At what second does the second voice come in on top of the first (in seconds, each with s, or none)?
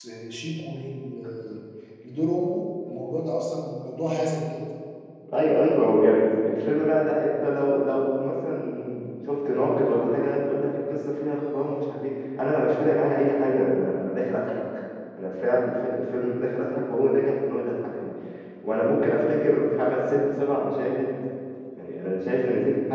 none